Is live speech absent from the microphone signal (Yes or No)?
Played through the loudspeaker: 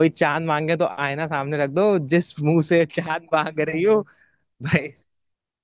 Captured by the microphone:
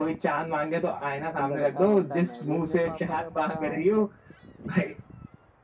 No